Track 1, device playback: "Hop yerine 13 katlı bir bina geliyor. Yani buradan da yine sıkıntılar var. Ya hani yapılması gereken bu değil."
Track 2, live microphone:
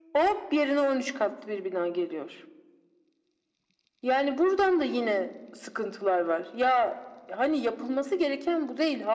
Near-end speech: none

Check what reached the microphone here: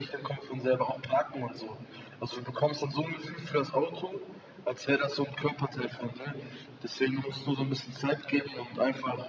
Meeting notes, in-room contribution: none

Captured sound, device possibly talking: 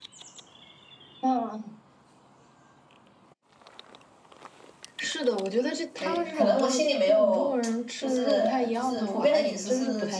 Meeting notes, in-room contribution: present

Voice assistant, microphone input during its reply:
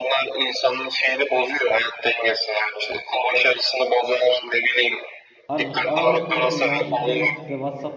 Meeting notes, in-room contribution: present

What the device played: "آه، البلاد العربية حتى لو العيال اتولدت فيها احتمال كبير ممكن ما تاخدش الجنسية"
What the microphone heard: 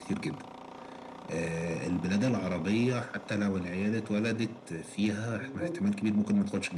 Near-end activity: present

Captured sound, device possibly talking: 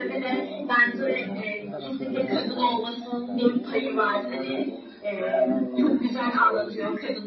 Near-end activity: present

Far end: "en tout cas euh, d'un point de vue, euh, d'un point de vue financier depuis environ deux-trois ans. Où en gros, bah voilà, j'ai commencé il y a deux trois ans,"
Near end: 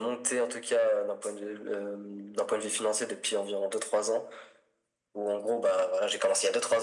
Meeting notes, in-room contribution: none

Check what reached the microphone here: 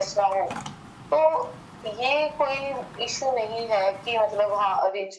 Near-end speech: none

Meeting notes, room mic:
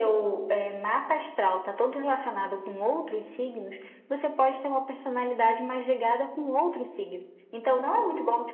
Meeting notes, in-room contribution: none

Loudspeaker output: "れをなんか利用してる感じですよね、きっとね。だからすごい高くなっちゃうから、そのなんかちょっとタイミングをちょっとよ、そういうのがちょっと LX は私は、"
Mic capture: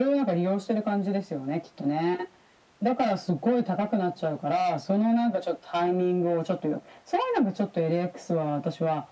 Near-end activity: none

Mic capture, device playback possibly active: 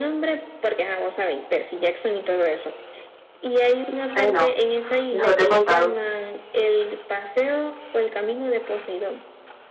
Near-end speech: present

